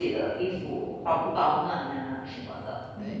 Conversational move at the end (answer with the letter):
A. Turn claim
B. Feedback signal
A